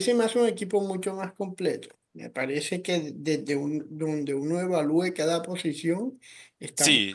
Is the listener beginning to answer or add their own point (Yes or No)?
Yes